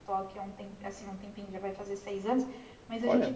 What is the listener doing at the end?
listening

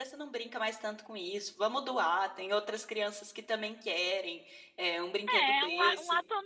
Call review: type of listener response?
taking over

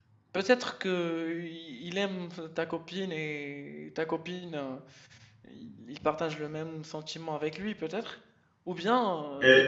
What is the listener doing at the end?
taking over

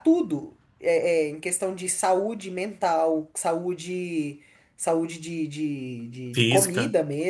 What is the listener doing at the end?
listening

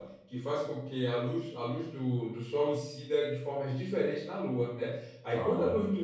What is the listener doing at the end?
listening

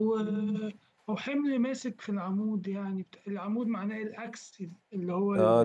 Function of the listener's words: taking over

